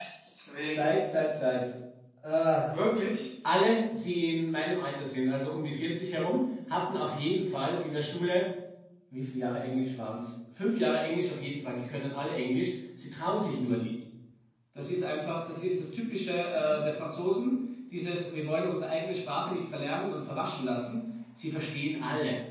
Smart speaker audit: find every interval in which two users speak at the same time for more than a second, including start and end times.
none

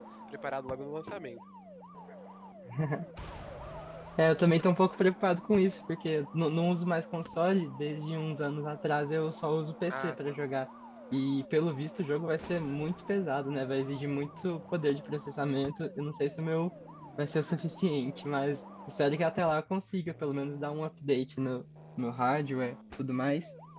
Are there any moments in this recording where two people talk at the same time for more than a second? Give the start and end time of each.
none

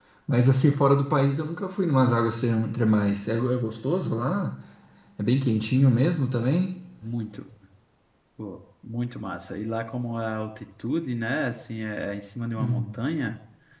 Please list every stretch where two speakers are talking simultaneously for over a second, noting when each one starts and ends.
none

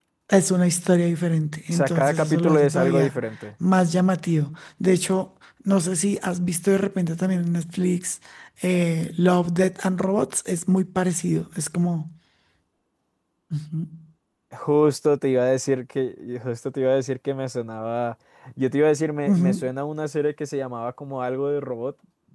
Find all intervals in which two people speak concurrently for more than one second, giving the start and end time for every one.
1.7-3.2

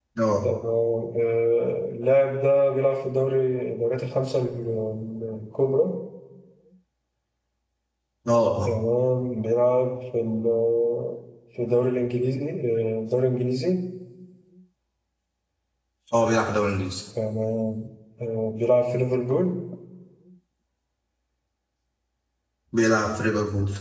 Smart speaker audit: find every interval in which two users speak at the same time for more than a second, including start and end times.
none

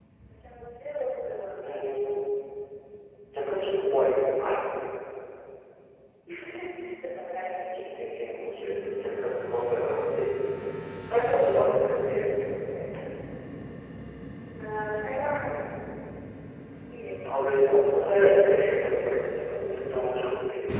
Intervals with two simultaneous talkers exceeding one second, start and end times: none

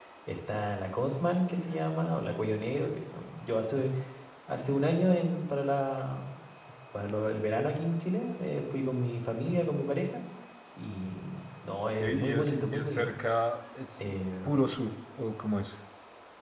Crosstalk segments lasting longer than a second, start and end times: 11.8-13.1

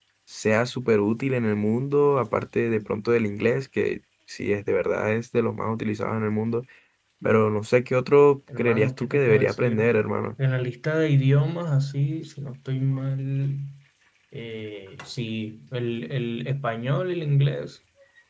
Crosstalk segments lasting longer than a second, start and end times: 8.6-9.8

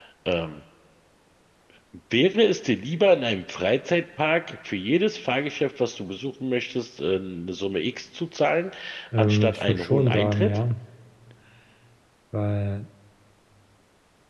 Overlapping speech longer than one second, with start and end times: 9.2-10.6

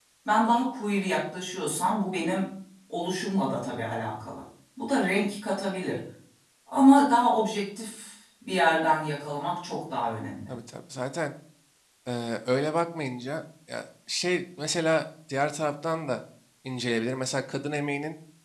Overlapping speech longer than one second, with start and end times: none

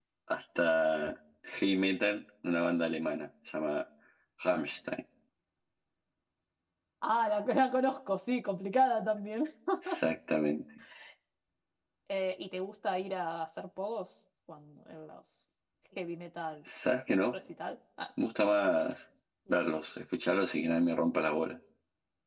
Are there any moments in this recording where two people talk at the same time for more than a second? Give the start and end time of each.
none

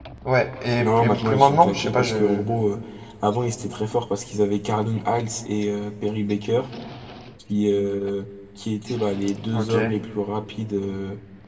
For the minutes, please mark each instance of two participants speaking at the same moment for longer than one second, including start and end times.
0.8-2.4

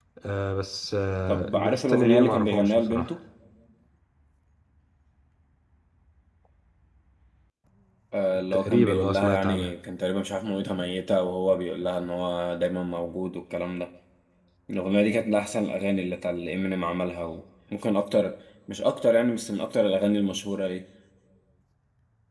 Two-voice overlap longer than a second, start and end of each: 1.3-3.1, 8.5-9.7

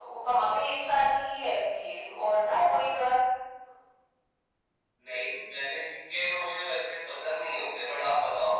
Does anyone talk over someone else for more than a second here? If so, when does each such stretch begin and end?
none

